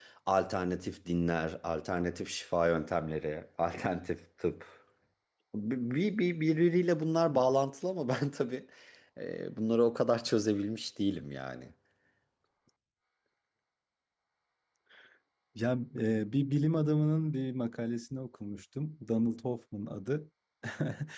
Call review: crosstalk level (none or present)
none